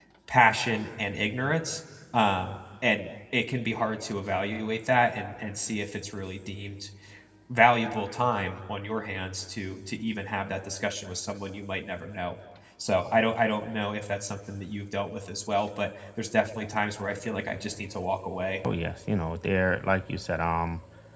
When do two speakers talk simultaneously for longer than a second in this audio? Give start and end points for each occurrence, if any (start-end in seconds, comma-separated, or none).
none